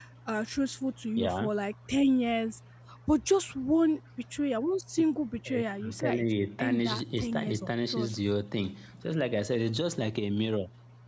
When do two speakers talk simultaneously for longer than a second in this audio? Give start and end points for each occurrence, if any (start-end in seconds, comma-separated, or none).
5.5-8.2